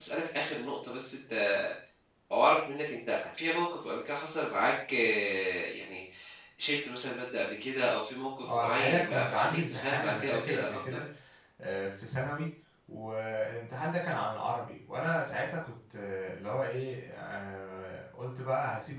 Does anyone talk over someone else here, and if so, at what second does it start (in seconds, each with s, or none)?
8.4 s